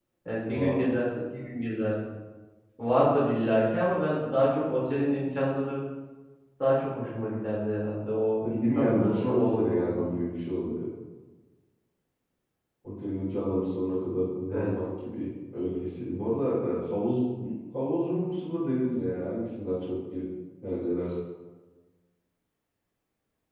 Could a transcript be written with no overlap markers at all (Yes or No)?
No